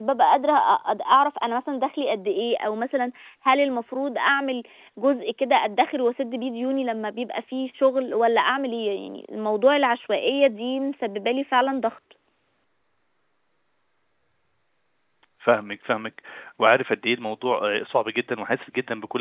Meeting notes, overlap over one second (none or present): none